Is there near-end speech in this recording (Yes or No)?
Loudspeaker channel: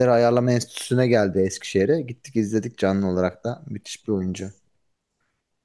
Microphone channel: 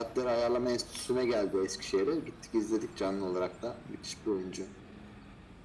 No